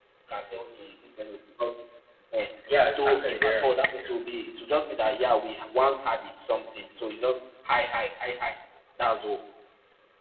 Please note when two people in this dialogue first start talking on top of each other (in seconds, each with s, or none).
2.9 s